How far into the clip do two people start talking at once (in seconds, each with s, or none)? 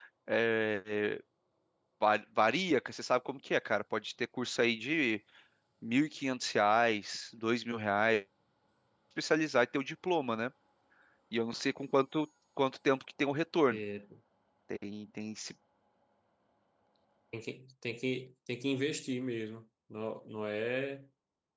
none